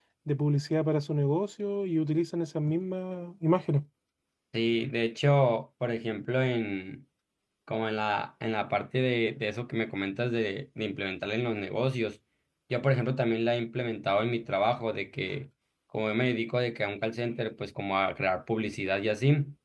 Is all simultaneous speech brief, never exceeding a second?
Yes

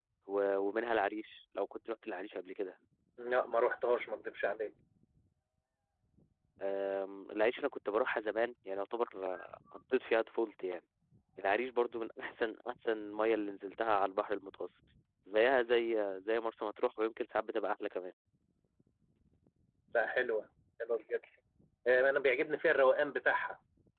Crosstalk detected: No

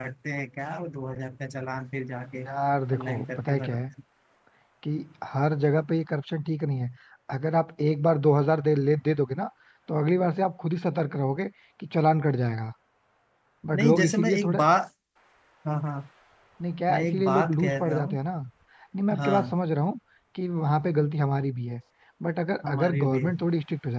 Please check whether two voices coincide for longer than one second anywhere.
Yes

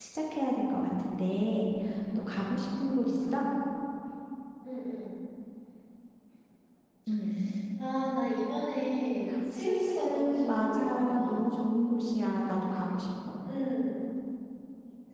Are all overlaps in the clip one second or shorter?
No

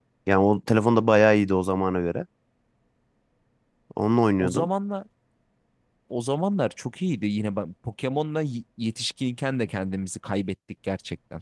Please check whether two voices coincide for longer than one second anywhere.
No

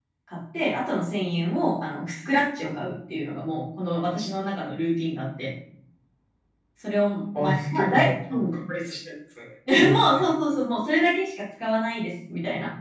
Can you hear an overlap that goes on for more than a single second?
Yes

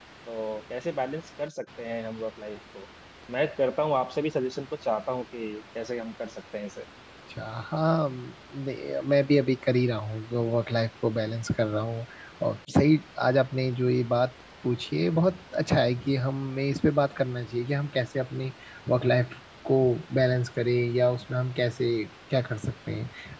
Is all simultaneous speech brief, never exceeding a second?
Yes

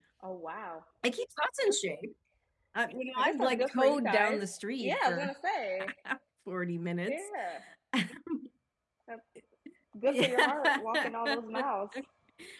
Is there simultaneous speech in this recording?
Yes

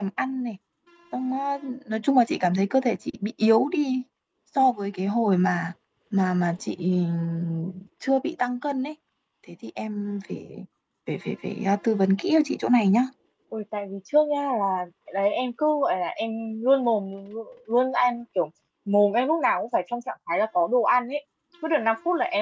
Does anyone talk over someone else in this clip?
No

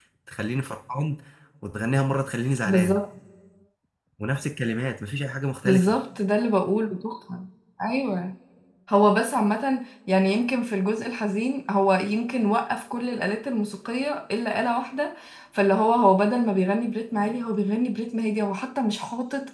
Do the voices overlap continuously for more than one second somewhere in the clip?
No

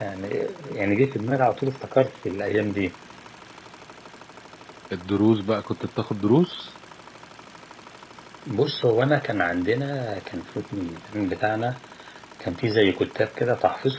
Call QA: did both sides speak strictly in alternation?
Yes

